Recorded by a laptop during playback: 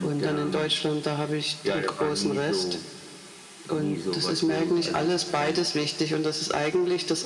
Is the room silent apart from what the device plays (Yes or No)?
Yes